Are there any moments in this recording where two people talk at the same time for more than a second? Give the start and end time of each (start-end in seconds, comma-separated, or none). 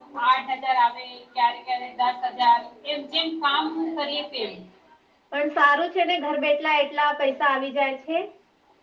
none